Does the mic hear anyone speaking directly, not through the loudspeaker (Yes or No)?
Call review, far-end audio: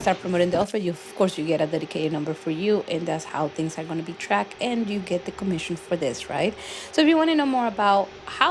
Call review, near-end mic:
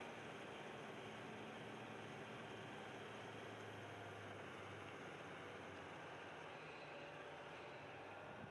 No